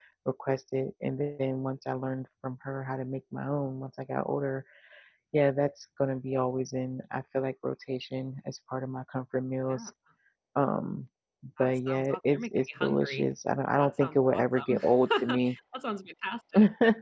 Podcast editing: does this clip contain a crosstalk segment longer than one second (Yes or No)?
Yes